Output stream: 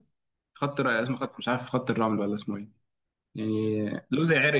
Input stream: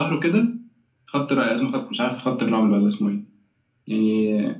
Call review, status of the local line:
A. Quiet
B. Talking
A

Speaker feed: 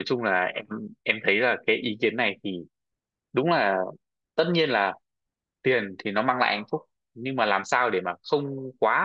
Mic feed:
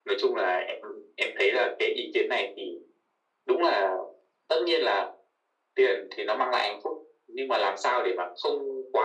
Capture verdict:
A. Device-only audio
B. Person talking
A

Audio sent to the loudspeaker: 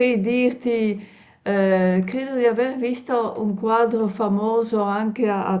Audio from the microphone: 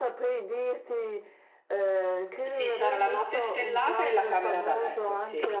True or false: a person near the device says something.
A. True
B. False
A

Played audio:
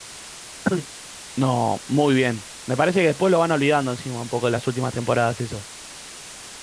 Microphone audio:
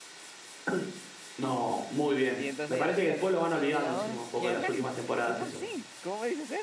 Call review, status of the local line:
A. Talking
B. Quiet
A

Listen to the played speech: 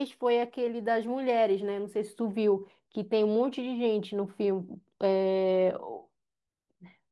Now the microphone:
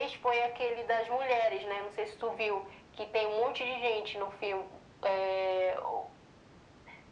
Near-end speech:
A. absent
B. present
A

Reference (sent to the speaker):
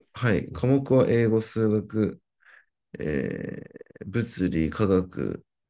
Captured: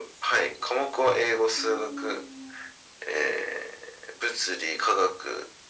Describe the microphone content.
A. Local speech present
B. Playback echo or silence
A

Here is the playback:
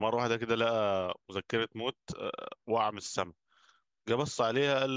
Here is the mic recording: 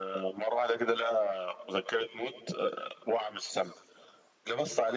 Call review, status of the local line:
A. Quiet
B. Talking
A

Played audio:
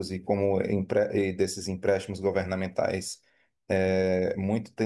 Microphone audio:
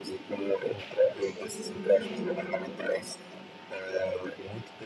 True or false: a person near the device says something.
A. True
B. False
A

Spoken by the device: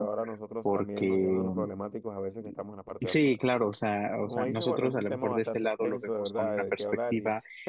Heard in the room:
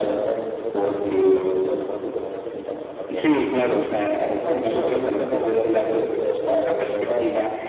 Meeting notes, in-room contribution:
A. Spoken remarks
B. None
B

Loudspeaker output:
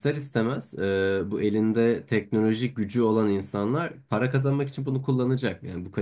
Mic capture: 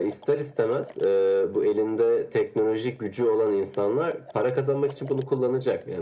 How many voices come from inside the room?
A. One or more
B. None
B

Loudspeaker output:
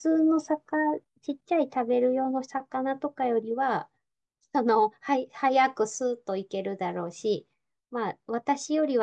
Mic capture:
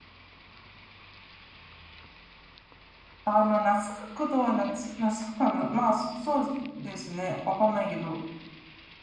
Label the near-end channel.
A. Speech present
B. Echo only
A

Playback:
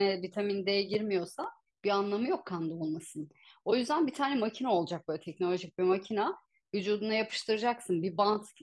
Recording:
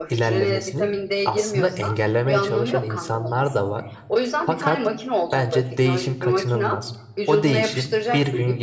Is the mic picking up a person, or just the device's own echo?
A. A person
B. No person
A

